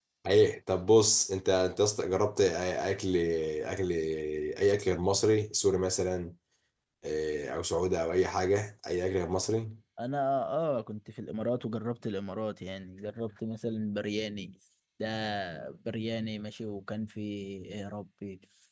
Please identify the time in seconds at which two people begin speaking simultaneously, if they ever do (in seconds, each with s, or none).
none